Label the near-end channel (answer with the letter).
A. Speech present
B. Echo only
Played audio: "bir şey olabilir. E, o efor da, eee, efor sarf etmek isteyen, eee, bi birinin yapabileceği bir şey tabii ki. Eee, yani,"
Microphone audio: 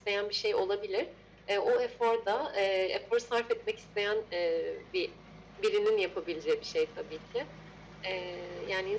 B